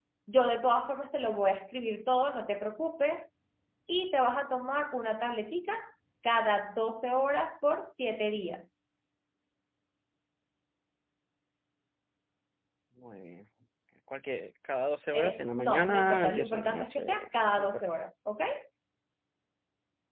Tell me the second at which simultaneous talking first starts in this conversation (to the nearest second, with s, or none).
15 s